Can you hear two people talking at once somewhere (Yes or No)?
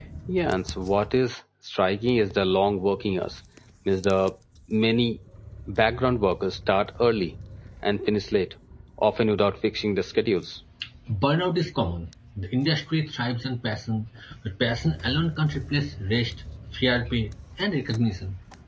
No